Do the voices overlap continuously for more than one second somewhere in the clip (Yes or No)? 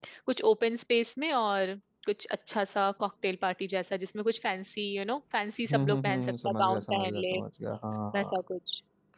Yes